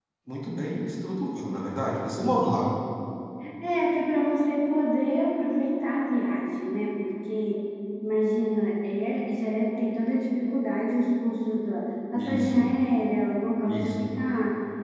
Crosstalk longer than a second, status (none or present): none